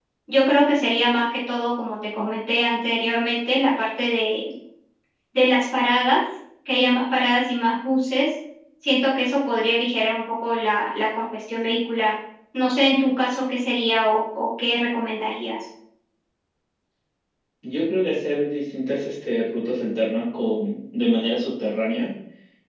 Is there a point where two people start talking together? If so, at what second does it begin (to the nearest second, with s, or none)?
none